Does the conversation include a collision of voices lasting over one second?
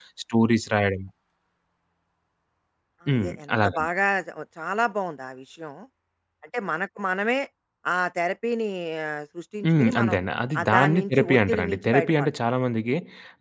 Yes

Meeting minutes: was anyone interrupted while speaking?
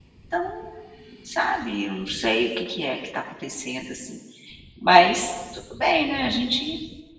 No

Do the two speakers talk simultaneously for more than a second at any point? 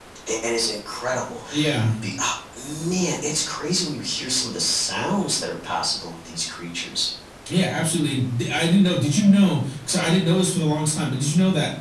No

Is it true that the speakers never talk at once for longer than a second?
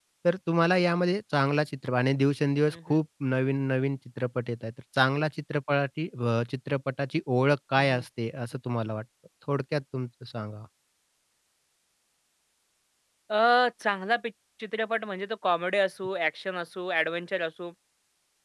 Yes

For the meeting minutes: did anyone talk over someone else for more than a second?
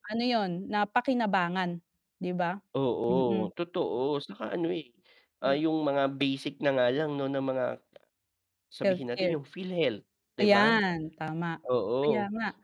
No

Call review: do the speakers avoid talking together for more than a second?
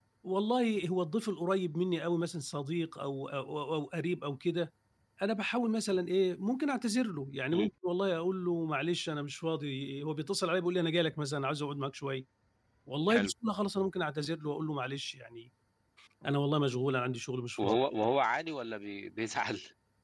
Yes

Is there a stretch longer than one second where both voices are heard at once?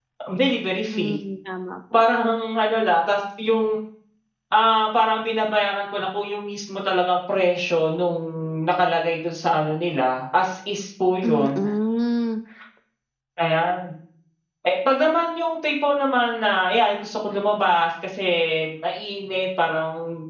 No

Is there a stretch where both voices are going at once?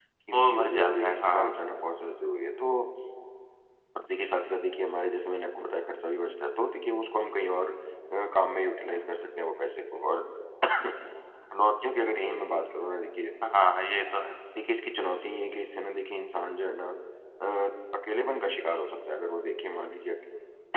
Yes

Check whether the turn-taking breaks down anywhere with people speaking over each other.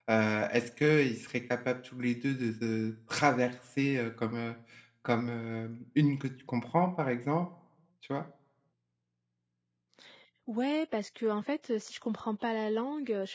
No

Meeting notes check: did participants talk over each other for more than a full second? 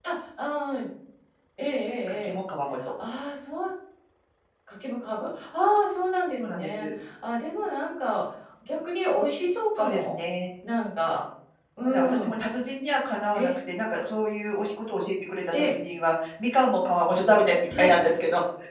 No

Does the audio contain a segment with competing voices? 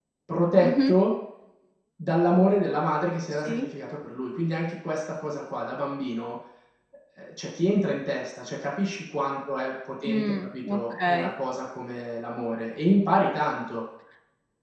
Yes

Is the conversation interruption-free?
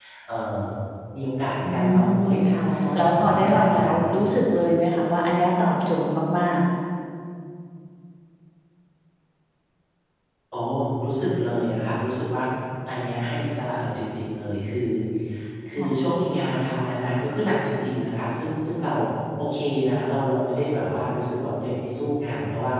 No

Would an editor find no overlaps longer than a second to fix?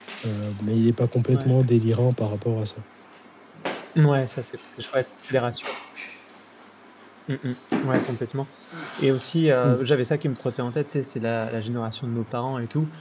Yes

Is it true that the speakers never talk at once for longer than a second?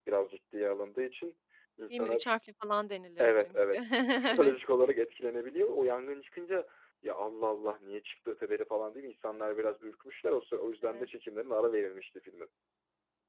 Yes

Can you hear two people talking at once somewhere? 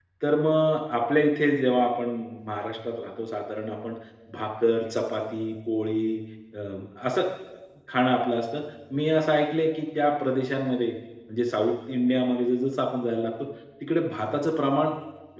No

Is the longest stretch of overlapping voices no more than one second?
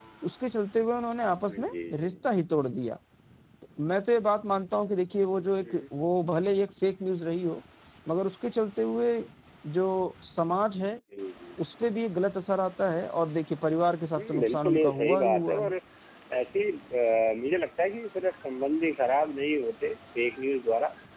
No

